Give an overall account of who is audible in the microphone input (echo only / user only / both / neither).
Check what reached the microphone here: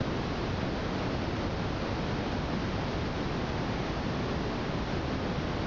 neither